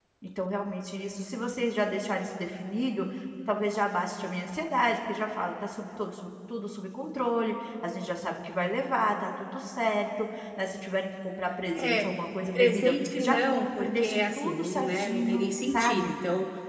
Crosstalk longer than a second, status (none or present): present